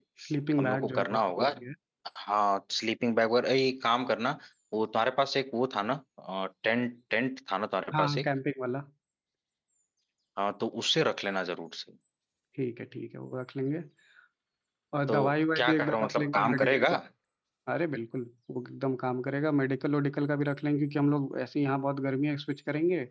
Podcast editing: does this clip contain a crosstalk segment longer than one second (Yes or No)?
Yes